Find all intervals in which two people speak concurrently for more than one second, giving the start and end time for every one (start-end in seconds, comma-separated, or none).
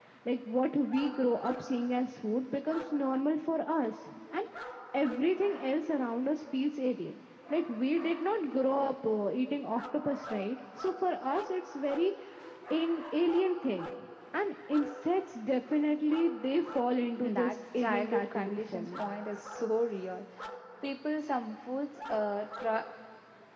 17.2-19.0